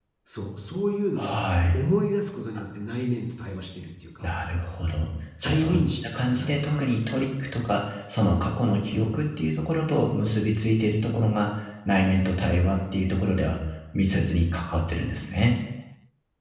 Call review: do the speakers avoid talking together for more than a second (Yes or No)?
No